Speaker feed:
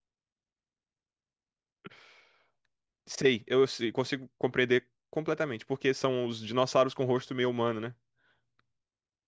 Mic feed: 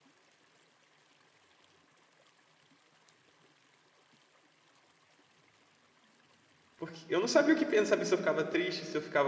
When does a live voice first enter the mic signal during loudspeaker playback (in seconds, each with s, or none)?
6.8 s